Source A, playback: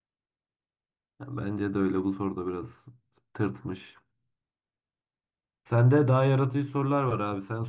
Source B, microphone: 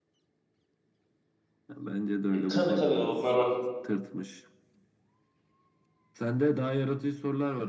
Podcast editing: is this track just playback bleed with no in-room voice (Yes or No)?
No